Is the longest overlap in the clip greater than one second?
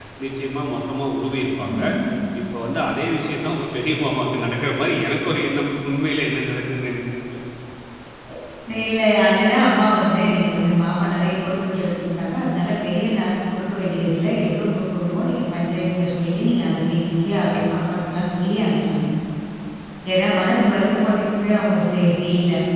No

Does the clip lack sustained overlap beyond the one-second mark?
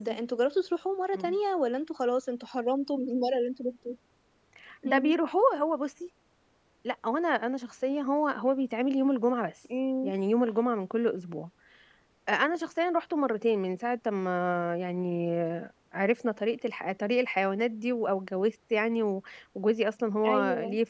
Yes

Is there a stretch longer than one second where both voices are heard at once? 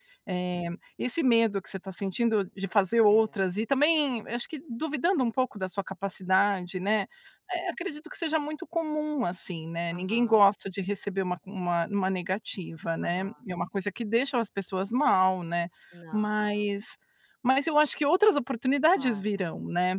No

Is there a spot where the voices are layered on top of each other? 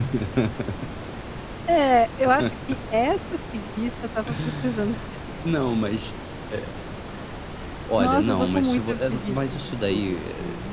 Yes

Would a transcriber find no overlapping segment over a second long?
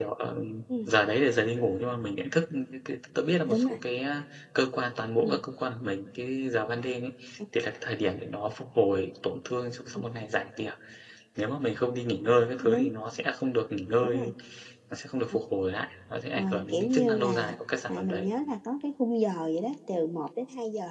No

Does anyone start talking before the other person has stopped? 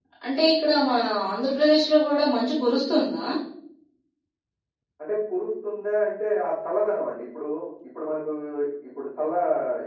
No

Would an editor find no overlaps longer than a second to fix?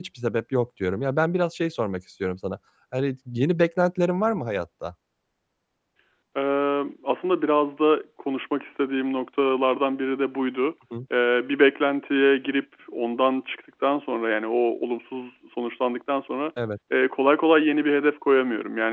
Yes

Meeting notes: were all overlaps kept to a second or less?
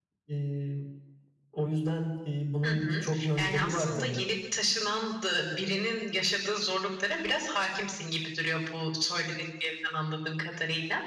No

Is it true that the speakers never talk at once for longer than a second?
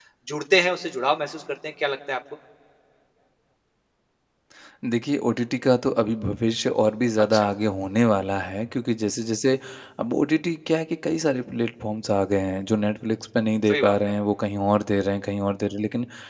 Yes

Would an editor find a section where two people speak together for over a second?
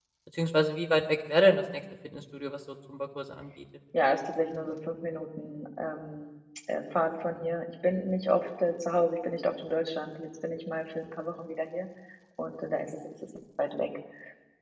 No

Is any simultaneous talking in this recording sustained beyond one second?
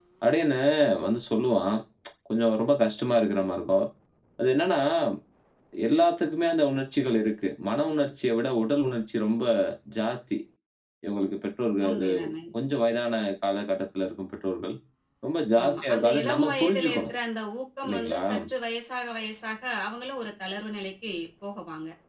Yes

